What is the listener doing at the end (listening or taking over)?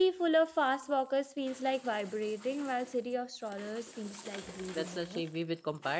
taking over